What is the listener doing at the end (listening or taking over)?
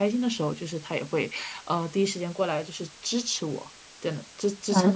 taking over